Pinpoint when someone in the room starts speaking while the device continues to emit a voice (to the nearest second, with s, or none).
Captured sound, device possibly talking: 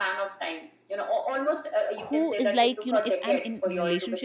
2 s